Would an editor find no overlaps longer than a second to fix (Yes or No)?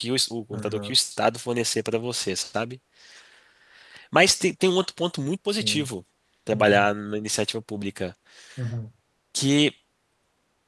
Yes